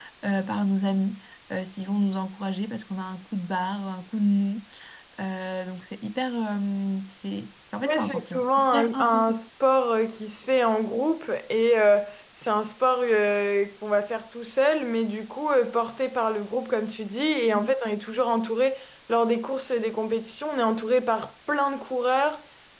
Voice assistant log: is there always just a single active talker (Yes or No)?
No